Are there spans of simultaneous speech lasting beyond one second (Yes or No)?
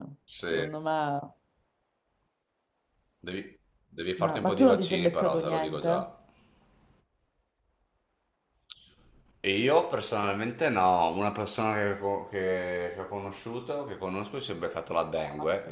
Yes